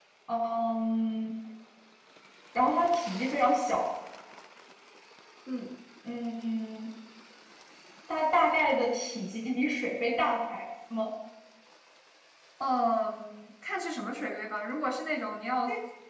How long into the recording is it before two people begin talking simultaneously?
none

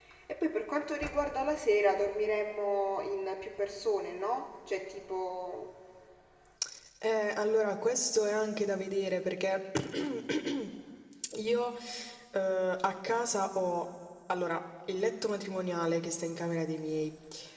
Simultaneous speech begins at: none

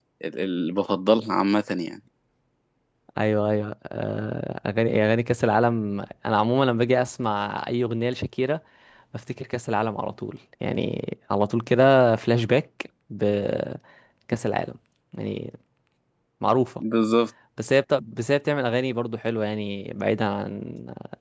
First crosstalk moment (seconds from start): none

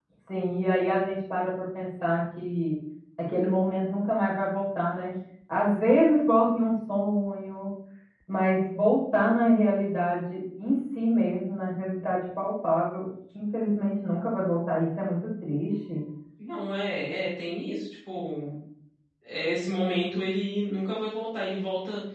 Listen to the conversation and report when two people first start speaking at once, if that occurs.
none

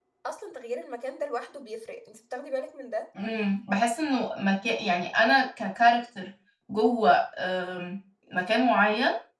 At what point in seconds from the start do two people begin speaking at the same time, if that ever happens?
none

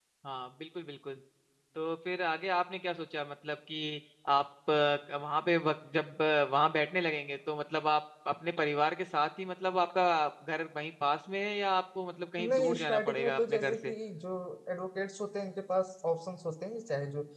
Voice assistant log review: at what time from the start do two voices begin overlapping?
12.4 s

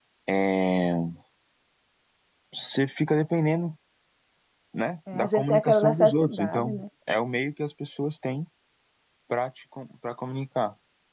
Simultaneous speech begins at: 5.1 s

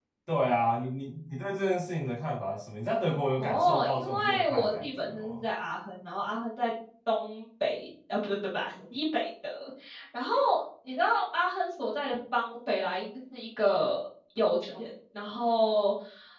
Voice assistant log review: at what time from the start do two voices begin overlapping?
3.4 s

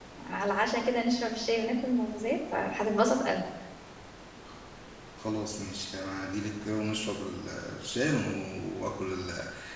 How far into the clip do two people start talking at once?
none

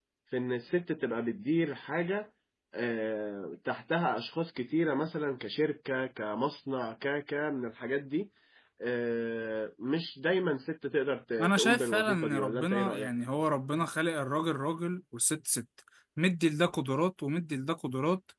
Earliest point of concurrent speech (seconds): 11.4 s

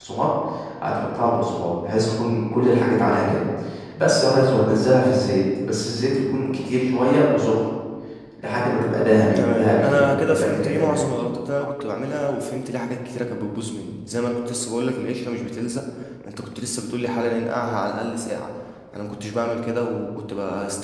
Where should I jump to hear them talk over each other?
9.3 s

